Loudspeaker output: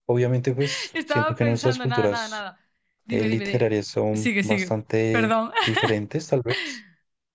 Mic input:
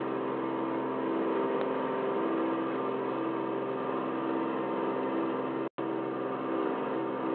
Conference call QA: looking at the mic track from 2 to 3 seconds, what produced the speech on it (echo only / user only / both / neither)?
neither